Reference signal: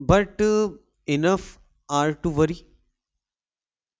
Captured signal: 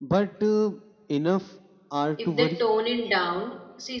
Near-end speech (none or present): present